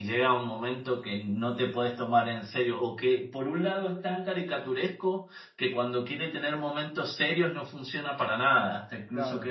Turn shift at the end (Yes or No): Yes